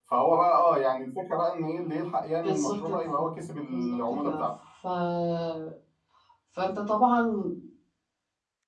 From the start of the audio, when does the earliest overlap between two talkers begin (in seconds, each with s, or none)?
2.4 s